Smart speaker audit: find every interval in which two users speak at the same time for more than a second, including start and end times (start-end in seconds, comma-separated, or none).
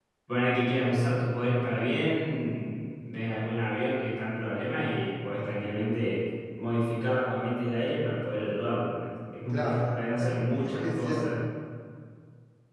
9.5-11.4